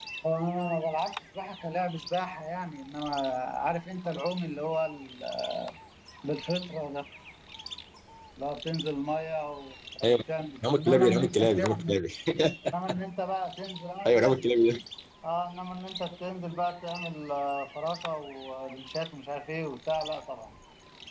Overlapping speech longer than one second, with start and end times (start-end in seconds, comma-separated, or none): 10.7-12.0